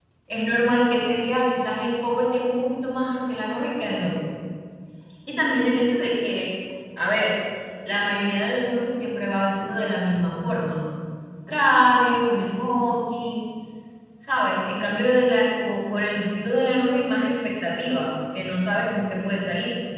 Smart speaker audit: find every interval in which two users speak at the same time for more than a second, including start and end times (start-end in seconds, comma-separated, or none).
none